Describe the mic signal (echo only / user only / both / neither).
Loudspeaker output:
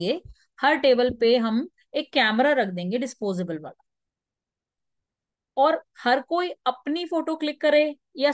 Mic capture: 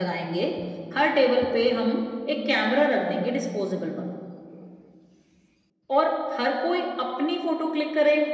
echo only